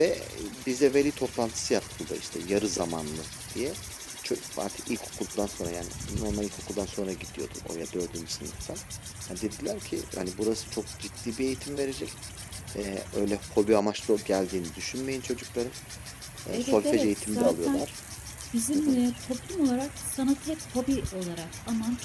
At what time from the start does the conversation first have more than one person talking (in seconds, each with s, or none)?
16.5 s